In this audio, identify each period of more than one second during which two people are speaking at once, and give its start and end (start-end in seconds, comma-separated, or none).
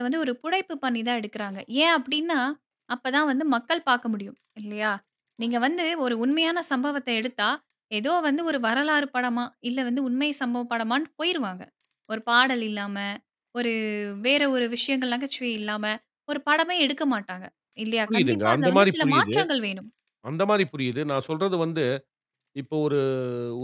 18.1-19.4